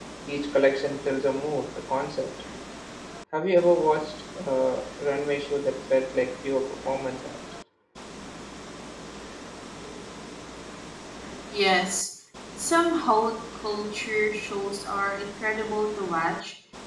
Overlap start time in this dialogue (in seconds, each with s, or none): none